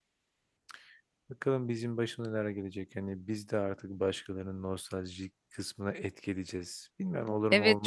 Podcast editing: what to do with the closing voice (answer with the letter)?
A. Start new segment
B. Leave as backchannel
A